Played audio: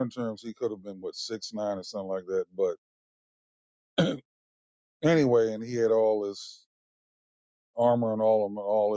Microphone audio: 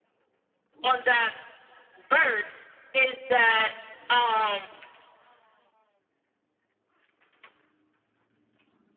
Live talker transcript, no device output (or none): on that verse is that. Um,